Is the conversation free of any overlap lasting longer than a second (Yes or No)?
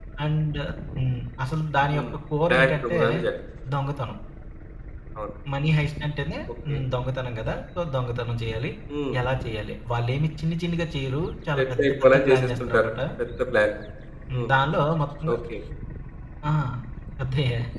No